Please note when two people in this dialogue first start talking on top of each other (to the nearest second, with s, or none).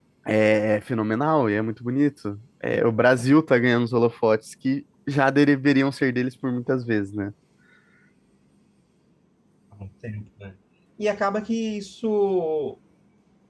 none